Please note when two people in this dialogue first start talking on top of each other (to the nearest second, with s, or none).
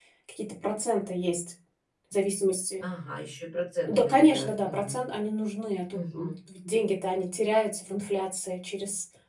4 s